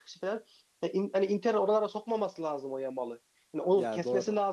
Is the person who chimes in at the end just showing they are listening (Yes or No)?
Yes